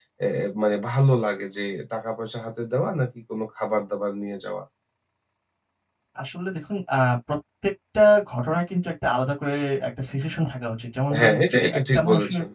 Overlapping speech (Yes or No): Yes